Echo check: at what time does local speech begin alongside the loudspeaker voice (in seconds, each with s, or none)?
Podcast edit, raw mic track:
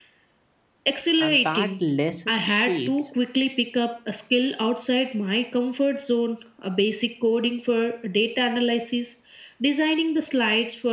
1.2 s